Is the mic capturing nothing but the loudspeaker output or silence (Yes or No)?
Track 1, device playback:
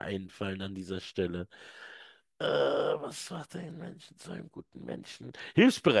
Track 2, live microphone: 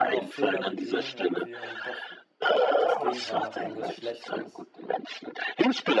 No